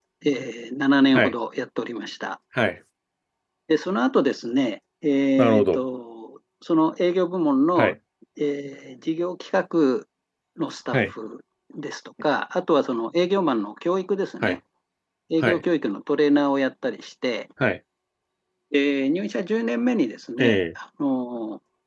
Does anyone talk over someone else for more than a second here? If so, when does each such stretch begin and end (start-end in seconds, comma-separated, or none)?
none